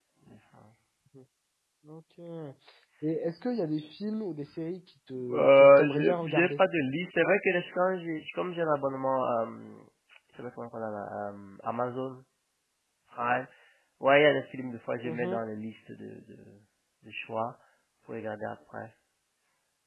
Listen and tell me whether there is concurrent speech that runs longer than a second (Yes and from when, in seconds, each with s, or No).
Yes, from 5.3 s